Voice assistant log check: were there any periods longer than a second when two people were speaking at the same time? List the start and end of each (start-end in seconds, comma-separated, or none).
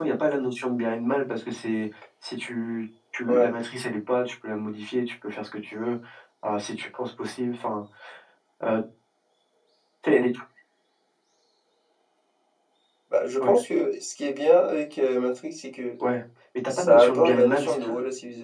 16.7-17.9